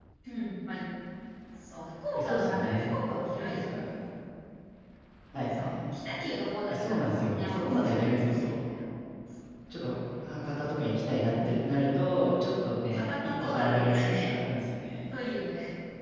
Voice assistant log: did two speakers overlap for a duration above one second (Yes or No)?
Yes